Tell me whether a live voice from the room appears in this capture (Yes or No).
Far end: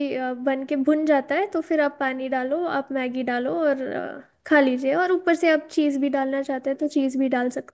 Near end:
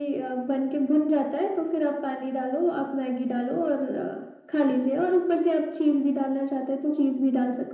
No